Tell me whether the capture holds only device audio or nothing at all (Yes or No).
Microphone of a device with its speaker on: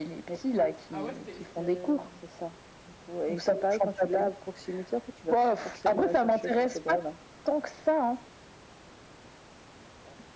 No